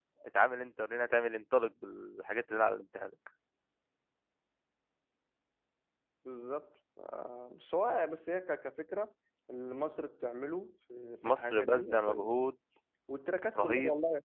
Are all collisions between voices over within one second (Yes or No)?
No